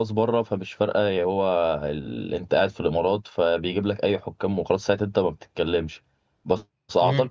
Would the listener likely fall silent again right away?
Yes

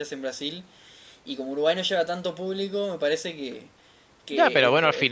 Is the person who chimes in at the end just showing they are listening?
No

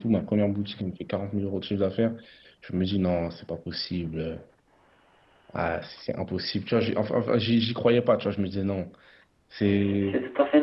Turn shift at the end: Yes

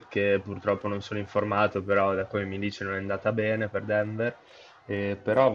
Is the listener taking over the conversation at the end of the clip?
No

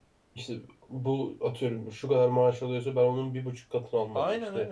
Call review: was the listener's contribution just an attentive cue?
Yes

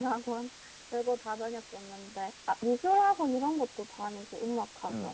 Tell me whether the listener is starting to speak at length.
Yes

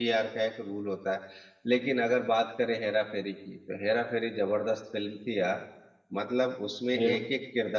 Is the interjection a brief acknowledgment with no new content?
Yes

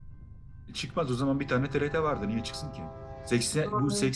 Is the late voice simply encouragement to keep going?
Yes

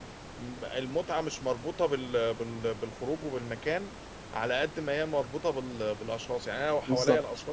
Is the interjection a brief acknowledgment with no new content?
Yes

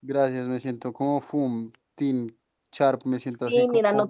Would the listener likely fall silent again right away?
No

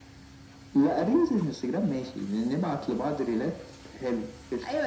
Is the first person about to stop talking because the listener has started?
Yes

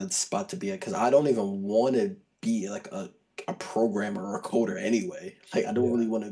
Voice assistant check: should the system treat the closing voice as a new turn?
No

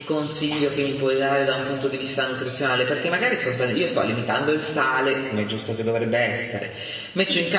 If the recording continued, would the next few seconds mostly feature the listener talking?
Yes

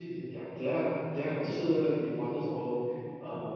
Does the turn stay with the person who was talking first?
Yes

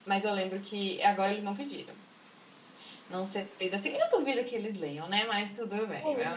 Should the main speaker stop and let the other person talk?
Yes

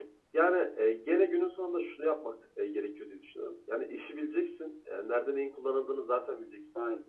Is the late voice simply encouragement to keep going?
Yes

